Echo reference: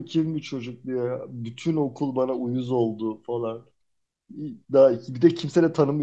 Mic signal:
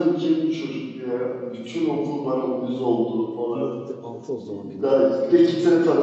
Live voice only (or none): 2006 o zaman benimki de.